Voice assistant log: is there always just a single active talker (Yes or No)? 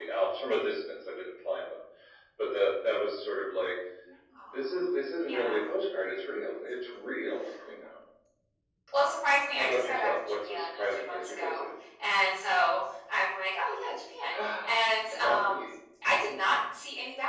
No